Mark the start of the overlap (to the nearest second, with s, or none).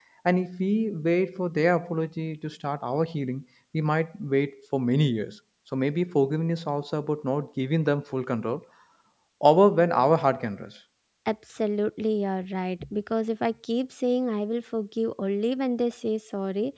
none